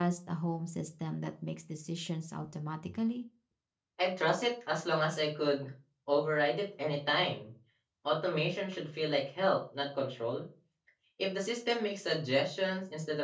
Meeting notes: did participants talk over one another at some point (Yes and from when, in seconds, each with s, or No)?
No